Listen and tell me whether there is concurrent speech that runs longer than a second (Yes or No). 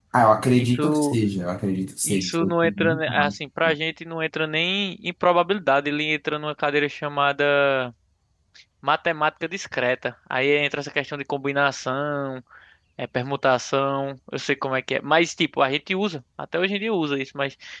Yes